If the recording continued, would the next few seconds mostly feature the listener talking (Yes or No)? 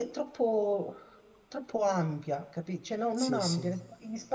No